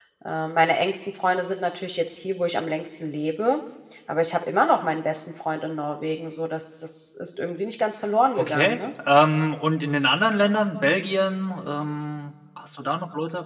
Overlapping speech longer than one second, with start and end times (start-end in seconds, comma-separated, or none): none